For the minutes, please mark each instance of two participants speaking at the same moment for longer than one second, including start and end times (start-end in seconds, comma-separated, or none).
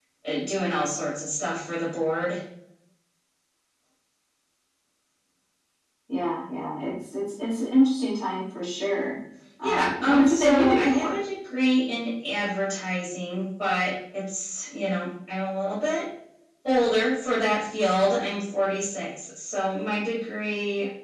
9.6-11.2